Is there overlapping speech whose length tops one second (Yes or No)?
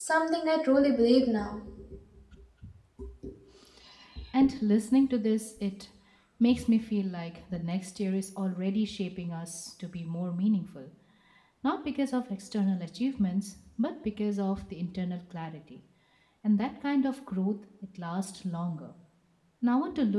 No